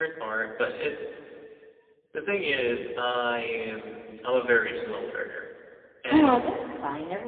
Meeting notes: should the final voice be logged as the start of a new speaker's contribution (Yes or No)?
Yes